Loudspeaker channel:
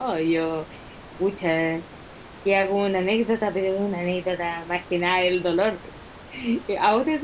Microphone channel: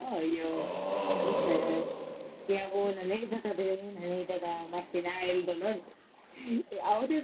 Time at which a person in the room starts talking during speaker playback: 0.5 s

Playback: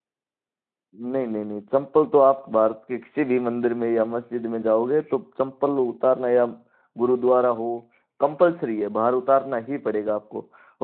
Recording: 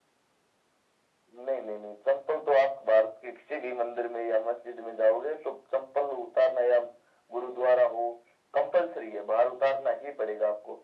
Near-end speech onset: none

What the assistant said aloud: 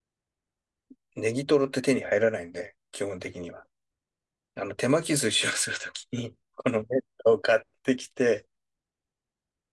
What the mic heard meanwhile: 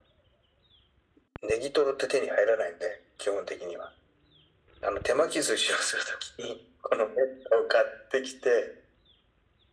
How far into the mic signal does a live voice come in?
none

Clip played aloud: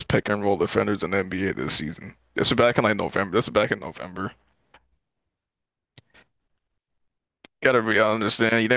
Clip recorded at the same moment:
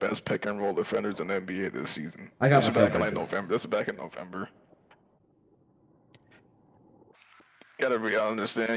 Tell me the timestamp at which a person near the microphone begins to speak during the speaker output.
2.4 s

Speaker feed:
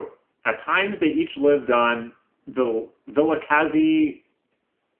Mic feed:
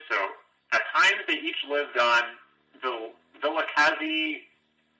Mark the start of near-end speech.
none

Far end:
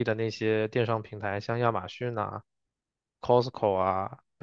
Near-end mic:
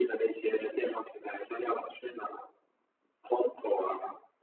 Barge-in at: none

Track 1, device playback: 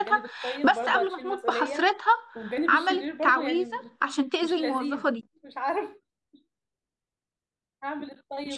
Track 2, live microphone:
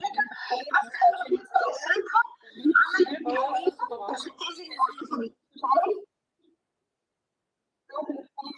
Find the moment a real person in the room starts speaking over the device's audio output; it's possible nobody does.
3.2 s

